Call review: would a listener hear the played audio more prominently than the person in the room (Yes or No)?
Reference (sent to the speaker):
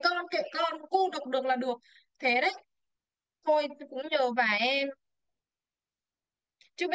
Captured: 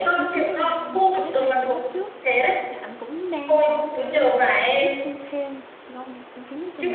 Yes